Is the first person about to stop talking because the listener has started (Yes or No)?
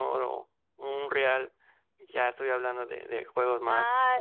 Yes